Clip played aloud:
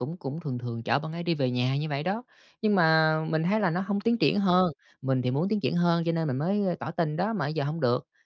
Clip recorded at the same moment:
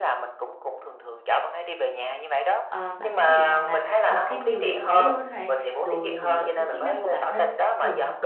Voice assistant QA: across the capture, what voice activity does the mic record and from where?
both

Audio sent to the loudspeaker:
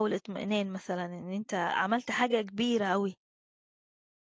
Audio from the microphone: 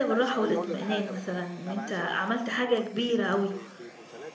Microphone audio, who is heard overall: both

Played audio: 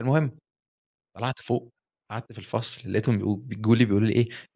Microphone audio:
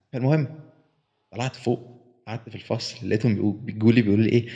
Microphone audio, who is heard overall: echo only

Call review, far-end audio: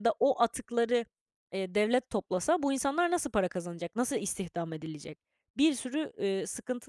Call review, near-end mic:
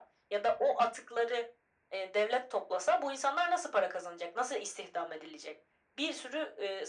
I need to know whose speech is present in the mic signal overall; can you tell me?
echo only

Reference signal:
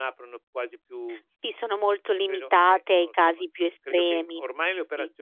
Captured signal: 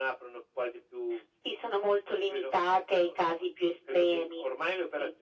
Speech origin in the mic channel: echo only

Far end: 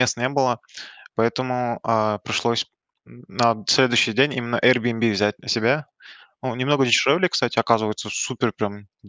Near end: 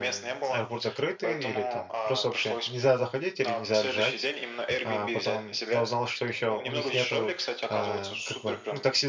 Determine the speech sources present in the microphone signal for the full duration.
both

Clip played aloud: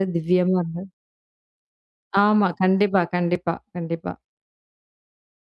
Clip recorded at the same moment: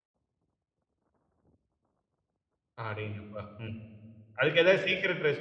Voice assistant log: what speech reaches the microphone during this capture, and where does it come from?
user only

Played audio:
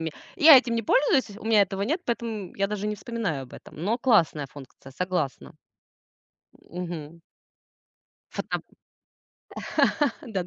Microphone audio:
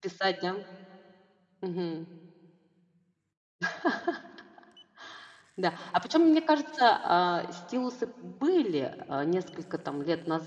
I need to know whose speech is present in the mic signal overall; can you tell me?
user only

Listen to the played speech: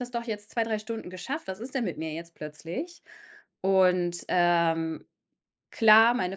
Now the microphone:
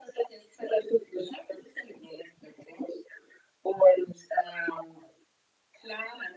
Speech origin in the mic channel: echo only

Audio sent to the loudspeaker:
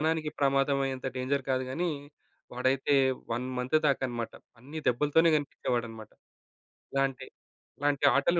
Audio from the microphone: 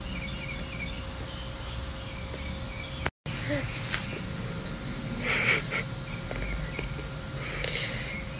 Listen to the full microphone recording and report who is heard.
neither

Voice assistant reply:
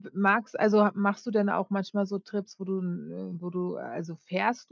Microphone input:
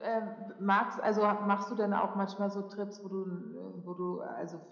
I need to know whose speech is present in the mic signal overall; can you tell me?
echo only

